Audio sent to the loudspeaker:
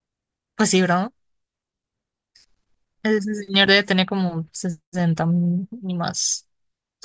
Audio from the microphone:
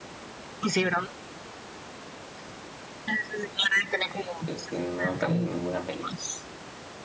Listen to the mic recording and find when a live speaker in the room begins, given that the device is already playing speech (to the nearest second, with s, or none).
4 s